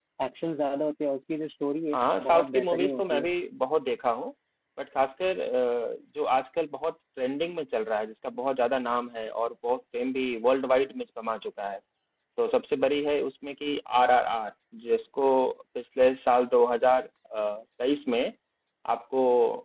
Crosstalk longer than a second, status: present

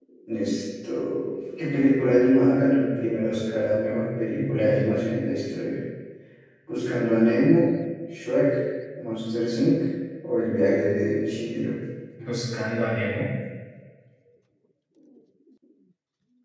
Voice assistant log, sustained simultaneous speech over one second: none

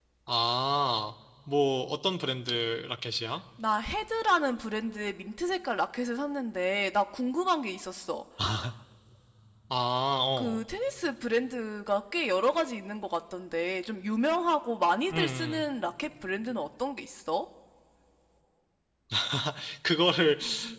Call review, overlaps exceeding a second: none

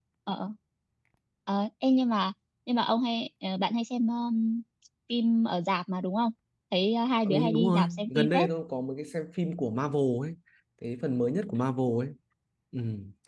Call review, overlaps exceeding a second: present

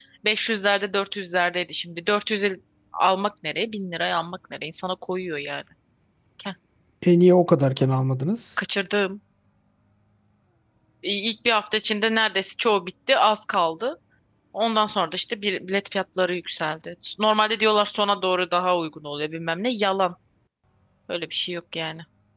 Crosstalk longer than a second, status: none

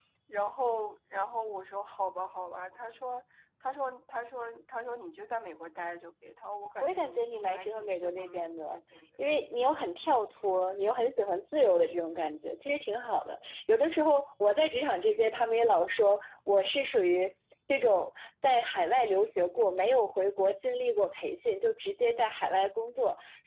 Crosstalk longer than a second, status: present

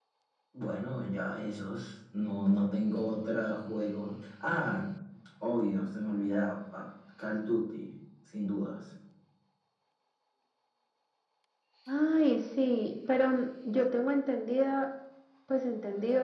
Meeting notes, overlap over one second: none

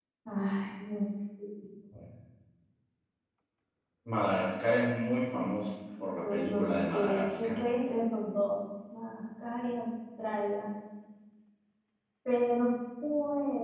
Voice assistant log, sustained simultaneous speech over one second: present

